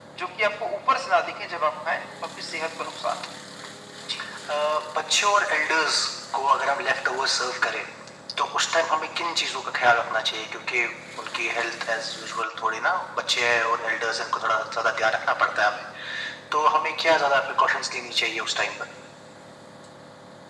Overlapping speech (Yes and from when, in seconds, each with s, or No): No